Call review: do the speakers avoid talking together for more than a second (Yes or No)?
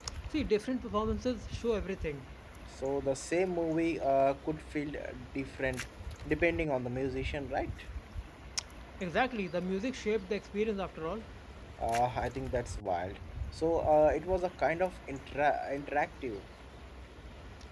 Yes